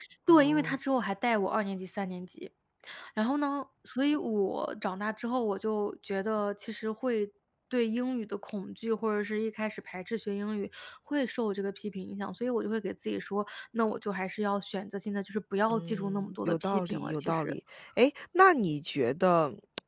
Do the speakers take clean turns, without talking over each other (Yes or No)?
No